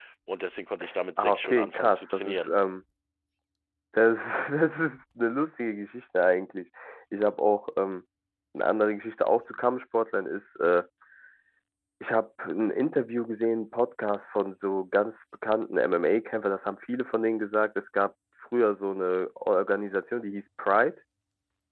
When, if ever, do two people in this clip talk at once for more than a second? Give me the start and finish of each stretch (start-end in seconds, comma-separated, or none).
1.2-2.5